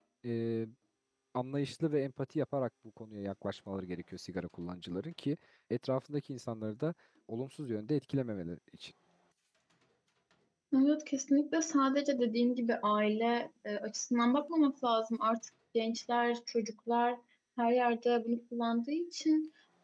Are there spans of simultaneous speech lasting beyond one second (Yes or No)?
No